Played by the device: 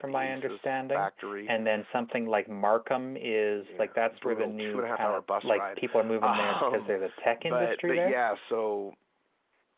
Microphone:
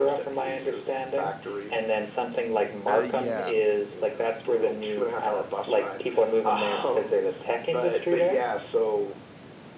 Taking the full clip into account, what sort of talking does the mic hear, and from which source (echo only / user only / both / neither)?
both